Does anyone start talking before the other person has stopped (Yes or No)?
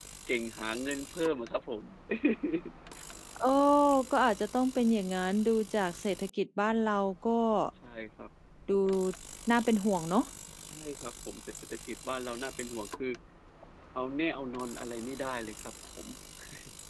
No